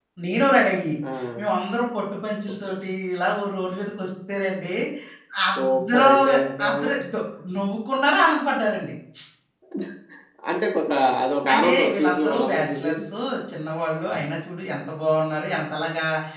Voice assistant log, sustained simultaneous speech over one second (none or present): present